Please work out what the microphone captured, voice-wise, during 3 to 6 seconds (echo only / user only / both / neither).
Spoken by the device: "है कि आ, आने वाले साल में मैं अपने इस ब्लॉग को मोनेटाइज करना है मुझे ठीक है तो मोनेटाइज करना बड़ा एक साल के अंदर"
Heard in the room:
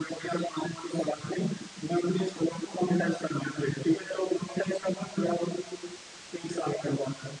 echo only